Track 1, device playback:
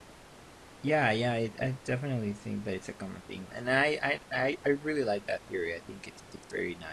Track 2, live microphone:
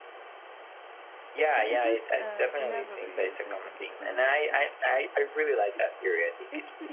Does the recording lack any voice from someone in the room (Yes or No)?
No